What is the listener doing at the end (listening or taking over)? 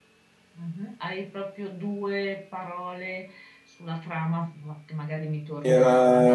taking over